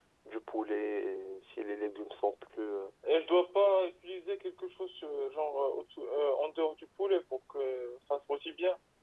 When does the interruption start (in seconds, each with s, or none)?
none